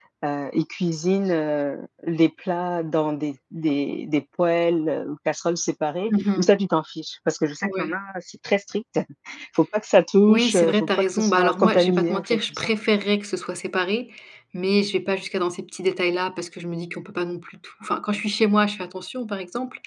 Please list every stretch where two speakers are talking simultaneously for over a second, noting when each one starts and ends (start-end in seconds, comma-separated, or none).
10.3-12.7